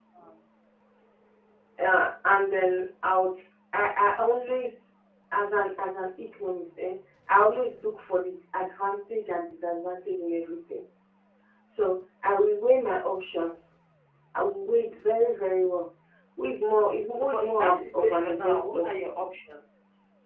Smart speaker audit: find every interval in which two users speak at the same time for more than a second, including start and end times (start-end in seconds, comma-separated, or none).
17.2-18.8